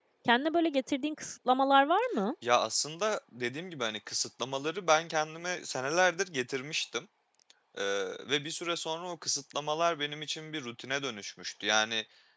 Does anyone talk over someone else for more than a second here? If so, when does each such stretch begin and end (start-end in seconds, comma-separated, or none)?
none